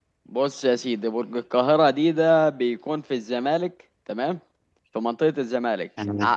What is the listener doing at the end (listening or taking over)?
listening